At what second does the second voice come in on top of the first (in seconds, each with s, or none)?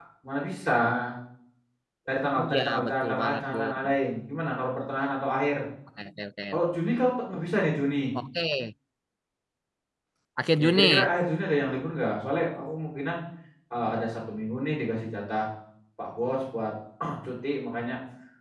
2.4 s